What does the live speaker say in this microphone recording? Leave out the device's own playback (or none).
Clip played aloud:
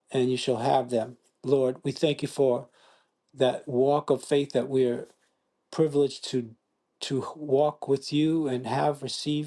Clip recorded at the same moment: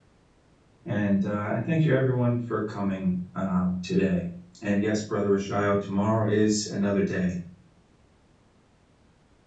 and uh, and thank you everyone for coming um, today. And yes, Brother Rashael, tomorrow is another day,